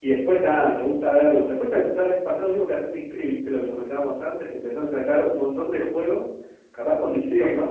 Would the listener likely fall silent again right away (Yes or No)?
Yes